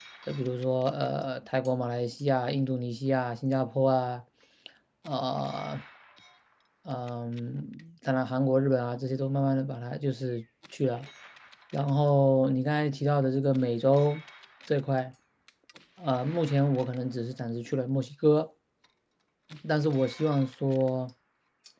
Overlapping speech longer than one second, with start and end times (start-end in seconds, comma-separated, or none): none